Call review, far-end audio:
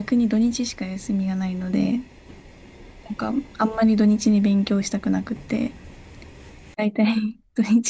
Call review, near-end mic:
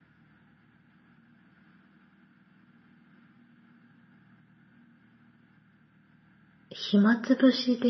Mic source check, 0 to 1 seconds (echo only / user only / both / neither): neither